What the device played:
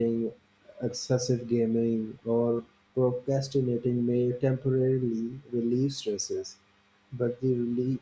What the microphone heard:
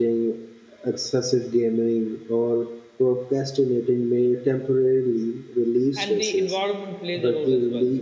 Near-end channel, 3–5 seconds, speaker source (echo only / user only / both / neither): echo only